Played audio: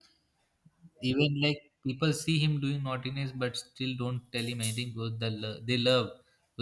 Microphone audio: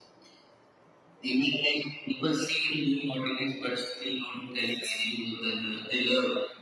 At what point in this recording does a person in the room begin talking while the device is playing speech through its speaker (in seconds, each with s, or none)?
none